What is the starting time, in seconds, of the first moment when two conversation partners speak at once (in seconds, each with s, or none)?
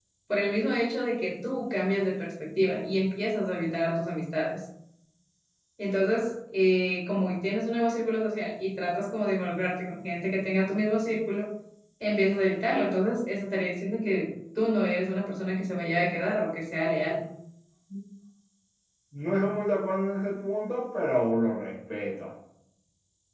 none